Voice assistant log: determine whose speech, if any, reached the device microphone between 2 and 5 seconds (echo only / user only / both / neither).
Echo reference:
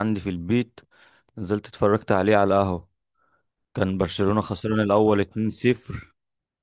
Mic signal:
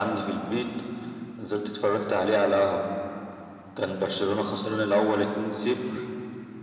echo only